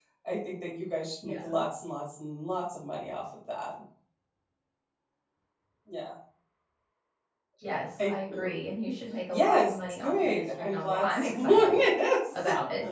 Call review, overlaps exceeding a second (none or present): present